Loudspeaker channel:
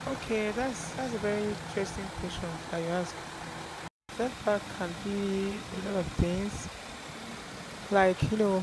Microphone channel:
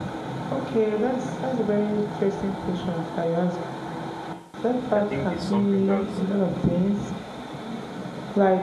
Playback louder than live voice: Yes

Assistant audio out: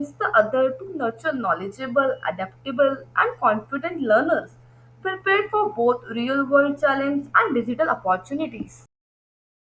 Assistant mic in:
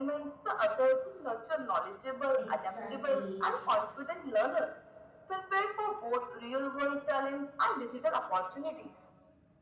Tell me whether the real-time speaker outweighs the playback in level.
No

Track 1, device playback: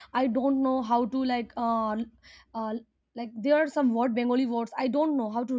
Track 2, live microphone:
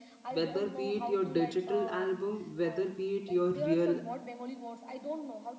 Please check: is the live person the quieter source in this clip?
No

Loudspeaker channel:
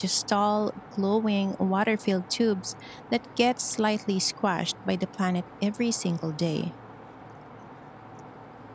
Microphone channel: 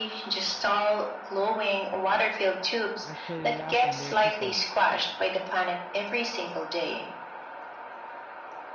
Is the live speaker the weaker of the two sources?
Yes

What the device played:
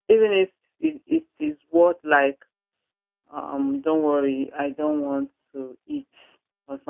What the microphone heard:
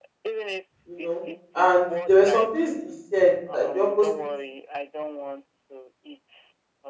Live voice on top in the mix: Yes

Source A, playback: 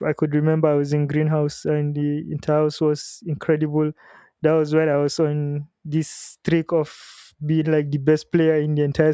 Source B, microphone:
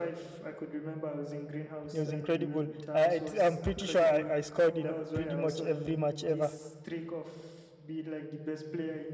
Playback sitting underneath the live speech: Yes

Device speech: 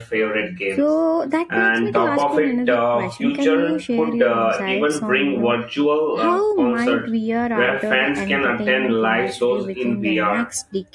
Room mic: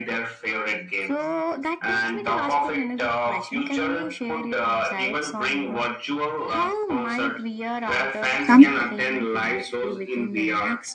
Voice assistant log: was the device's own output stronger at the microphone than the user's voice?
No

